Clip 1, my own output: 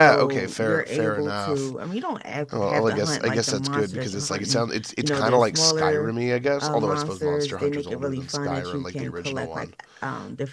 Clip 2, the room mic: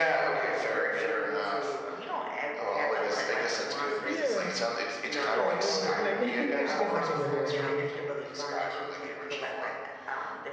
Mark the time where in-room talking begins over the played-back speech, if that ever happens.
4.0 s

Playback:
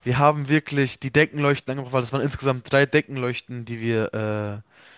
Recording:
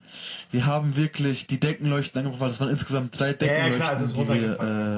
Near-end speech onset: 3.4 s

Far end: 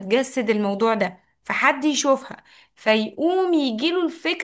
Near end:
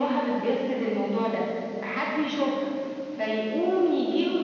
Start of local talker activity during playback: none

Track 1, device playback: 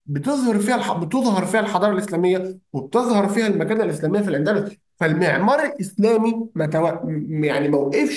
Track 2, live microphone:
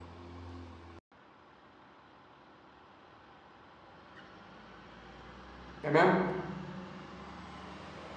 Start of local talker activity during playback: 5.8 s

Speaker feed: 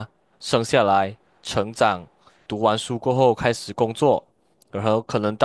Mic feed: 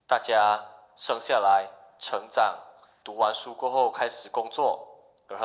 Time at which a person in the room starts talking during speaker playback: none

